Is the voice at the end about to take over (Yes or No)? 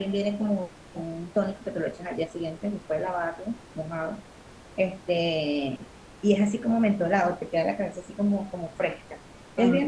No